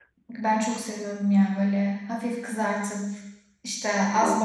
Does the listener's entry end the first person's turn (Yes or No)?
No